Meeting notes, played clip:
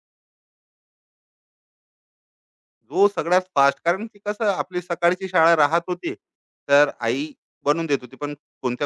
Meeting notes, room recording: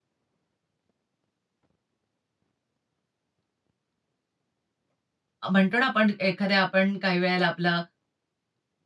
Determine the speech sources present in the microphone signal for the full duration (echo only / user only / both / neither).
user only